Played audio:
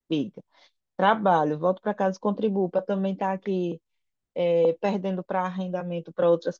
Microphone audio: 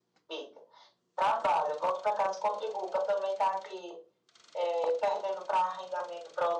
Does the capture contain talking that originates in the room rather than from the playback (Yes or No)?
No